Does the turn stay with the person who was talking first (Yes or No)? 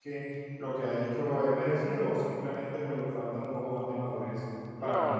No